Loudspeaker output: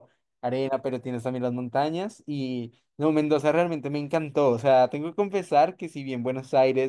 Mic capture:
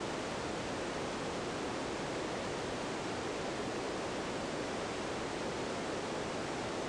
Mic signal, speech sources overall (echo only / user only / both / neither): neither